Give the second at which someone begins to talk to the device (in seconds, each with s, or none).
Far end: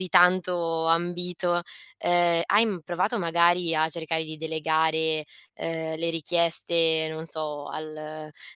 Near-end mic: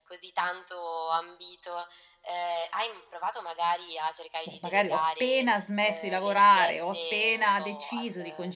4.4 s